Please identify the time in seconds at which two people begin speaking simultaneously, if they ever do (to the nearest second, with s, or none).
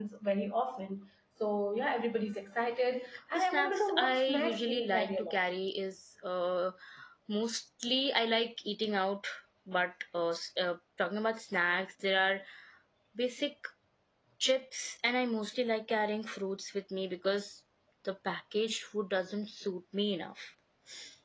3 s